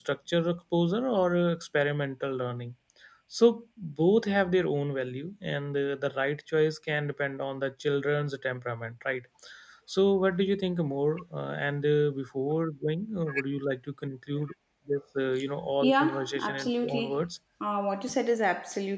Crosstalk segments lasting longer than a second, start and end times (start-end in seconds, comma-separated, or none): 15.8-17.2